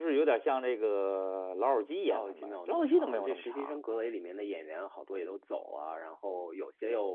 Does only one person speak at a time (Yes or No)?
No